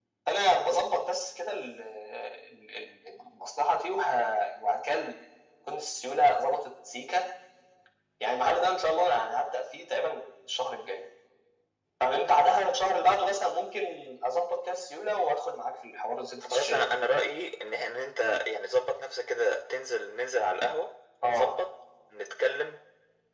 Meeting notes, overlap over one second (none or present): none